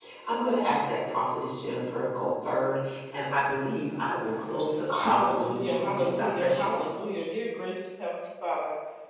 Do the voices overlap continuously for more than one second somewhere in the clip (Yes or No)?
Yes